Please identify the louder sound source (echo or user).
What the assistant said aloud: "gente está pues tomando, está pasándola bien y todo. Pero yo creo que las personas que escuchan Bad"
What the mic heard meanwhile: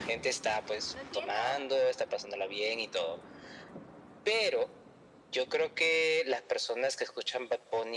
echo